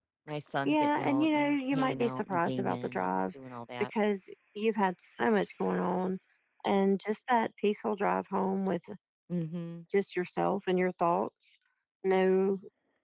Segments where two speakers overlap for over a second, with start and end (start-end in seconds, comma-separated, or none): 0.7-3.1